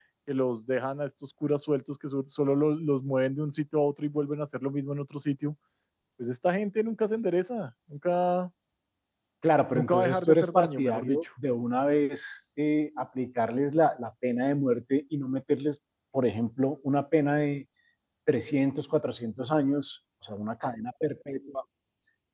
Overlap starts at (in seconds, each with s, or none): 9.8 s